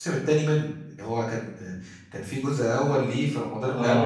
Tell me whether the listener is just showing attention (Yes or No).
No